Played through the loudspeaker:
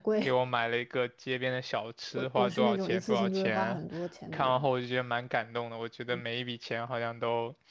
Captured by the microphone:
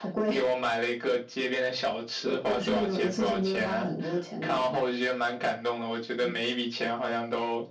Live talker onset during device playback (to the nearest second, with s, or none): none